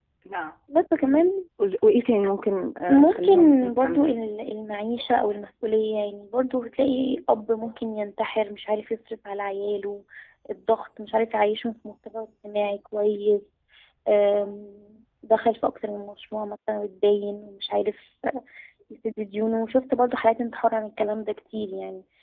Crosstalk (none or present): present